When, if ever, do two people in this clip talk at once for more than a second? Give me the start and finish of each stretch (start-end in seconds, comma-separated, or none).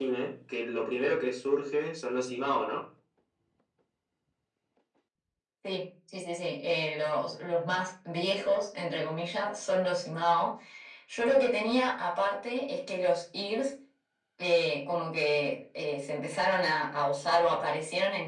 none